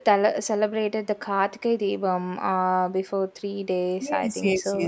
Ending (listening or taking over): taking over